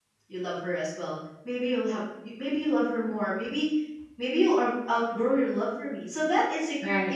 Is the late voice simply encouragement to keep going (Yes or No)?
Yes